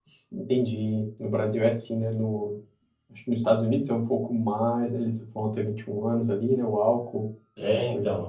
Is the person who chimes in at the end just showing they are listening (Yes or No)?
No